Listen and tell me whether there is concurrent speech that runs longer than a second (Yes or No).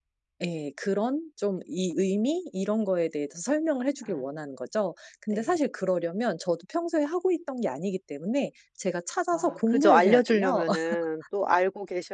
Yes